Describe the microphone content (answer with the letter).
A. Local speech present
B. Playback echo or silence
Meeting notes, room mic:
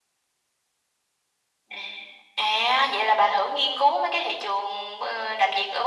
B